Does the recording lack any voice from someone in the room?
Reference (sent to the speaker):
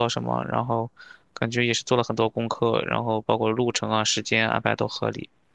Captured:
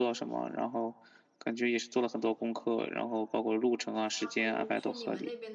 No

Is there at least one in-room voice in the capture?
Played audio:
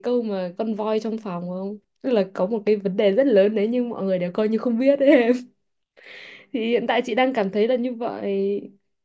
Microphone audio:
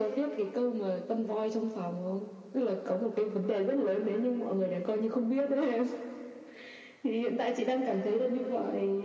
No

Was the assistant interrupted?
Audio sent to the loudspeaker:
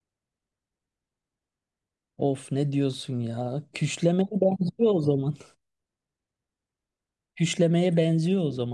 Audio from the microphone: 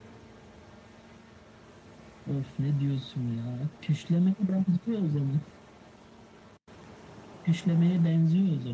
No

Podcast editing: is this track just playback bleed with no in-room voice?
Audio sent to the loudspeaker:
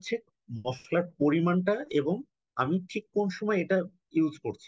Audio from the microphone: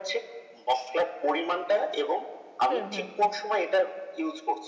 No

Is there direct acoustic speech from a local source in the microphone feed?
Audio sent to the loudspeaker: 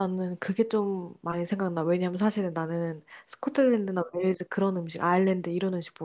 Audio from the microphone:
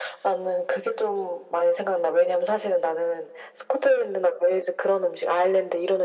No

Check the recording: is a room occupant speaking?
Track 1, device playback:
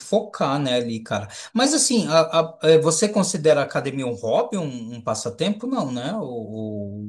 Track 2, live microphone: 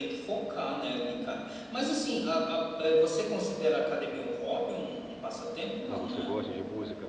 Yes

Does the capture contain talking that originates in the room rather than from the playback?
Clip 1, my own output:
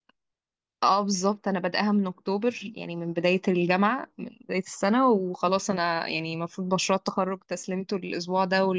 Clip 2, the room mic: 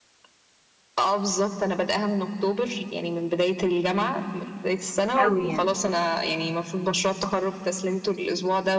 Yes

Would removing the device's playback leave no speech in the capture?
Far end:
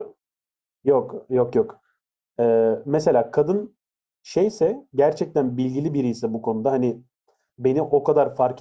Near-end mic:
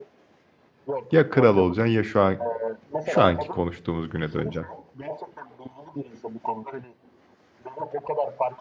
No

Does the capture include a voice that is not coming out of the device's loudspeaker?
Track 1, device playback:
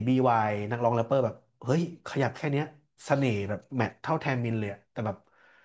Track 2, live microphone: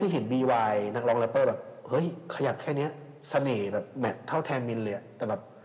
No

